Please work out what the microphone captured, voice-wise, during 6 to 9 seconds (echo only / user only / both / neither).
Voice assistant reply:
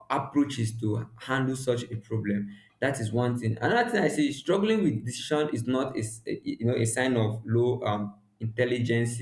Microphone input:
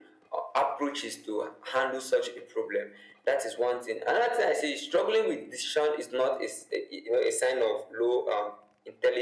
echo only